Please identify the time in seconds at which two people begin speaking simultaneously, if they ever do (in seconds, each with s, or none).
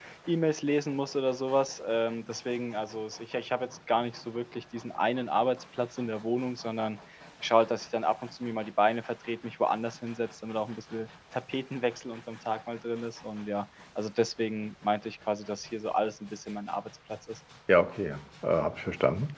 none